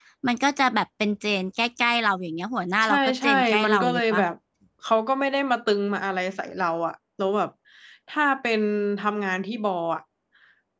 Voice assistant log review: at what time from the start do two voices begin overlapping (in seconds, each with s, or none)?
2.8 s